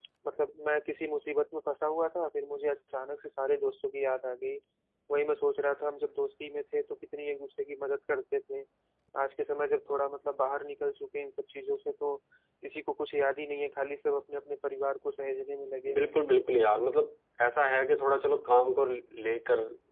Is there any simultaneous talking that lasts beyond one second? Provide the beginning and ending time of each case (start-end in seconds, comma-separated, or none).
none